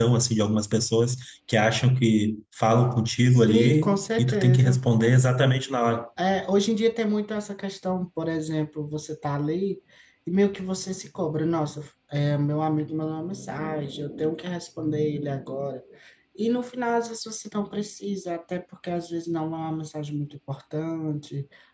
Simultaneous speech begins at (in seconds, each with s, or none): 3.3 s